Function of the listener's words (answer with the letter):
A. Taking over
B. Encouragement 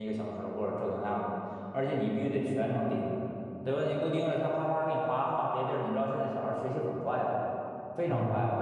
B